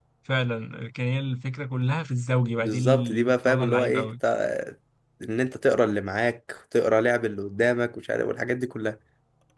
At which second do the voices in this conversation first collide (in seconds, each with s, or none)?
2.6 s